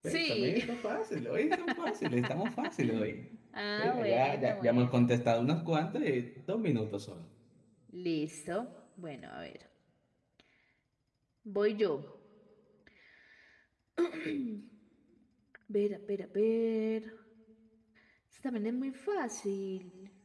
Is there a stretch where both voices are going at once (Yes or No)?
Yes